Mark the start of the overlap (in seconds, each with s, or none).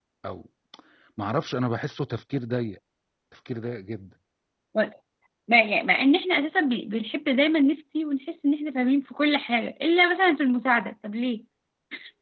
none